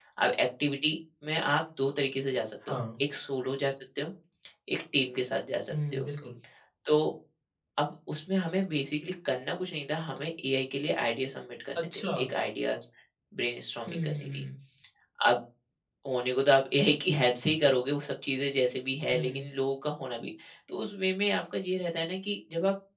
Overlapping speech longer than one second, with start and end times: none

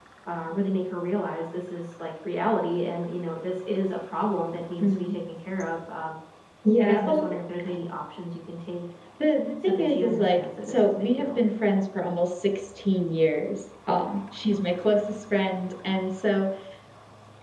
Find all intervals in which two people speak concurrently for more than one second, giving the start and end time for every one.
9.6-11.4

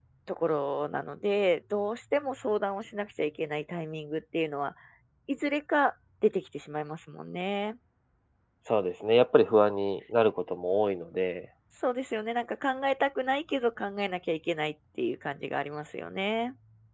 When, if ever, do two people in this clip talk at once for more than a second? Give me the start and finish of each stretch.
none

